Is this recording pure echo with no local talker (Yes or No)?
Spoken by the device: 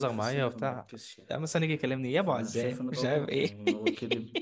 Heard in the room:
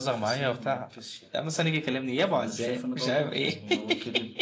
Yes